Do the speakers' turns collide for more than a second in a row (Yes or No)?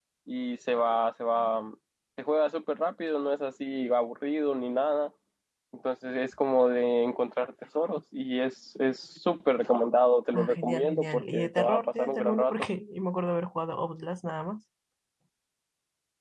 Yes